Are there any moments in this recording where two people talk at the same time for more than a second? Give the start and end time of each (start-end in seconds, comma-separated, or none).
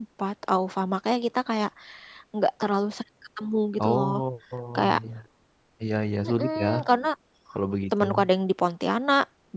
none